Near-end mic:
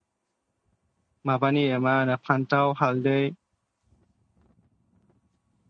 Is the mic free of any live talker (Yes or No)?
No